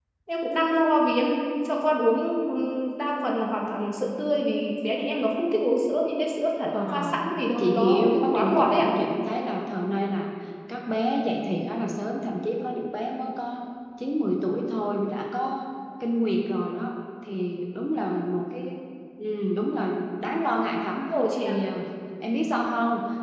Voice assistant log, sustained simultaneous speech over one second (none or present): present